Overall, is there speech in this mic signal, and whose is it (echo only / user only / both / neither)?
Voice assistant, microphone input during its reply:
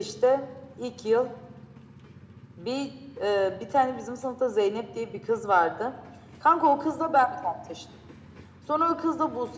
echo only